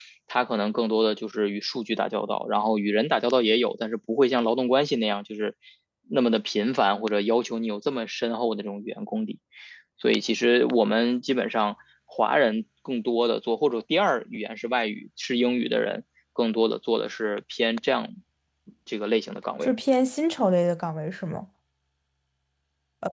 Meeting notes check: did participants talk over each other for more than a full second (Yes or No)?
No